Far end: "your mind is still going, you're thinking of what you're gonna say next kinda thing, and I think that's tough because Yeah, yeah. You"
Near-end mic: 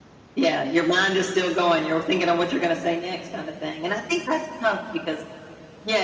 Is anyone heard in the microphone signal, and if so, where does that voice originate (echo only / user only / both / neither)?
echo only